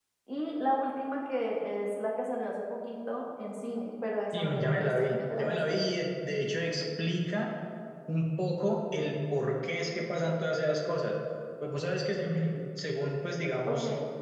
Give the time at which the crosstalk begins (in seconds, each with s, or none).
4.3 s